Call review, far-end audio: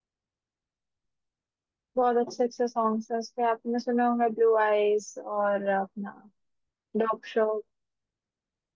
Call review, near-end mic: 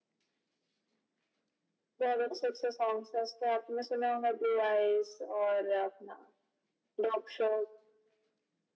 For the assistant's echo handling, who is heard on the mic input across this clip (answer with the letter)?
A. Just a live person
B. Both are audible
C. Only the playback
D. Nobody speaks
C